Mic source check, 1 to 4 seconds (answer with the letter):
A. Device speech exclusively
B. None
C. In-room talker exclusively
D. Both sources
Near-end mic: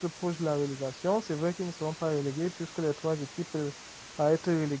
C